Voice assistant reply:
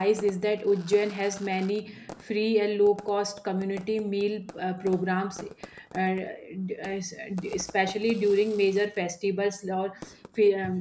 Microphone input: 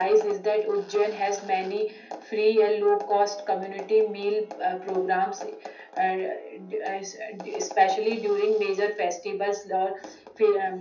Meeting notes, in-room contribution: none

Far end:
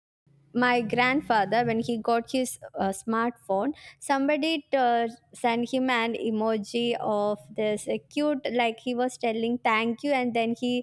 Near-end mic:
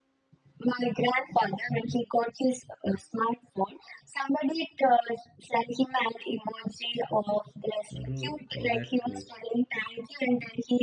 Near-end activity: present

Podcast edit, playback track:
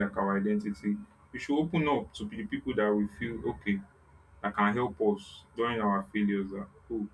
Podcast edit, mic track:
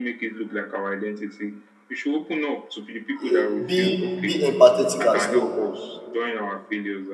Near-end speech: present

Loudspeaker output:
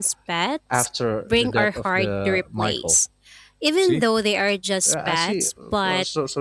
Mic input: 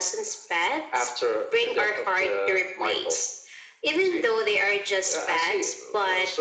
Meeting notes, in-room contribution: none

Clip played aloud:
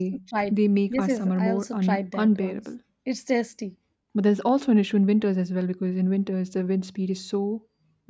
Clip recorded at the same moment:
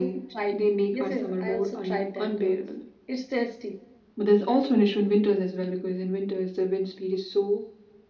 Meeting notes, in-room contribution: none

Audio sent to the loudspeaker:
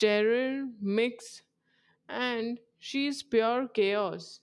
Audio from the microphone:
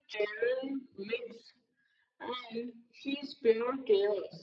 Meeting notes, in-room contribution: none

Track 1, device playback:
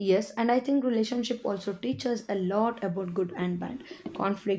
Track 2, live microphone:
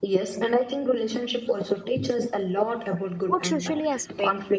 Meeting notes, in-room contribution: present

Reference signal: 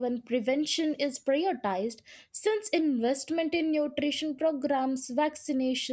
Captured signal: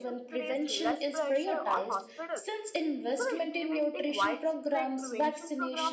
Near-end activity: present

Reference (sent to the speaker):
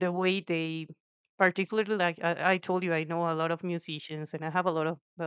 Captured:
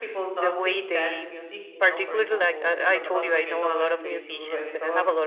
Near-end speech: present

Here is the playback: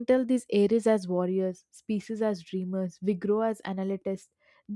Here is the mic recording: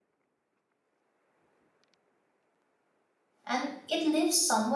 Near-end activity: present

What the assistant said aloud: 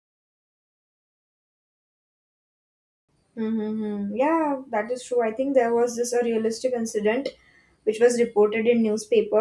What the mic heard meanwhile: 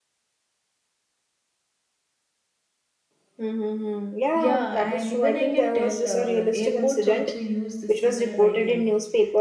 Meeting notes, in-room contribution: present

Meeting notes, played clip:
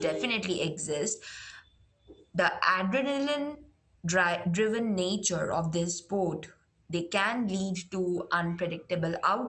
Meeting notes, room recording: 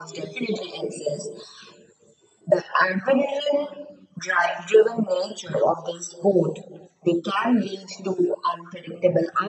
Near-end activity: none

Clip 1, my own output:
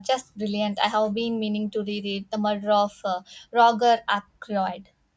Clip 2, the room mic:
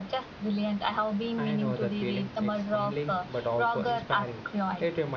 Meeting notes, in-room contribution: present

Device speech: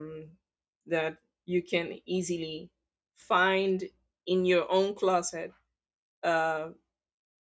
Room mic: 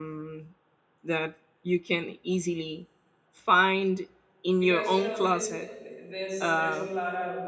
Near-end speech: present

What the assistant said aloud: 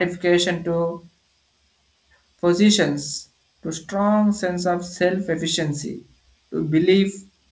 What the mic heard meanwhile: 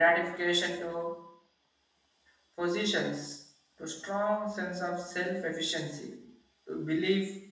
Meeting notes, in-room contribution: none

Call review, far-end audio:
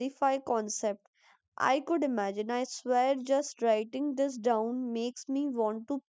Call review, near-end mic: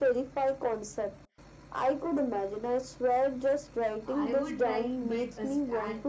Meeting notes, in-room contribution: present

